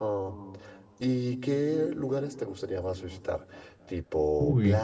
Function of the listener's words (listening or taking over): listening